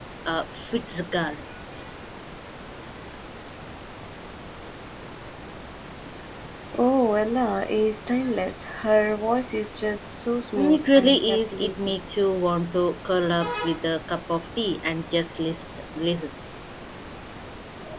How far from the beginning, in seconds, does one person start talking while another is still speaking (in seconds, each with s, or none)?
10.6 s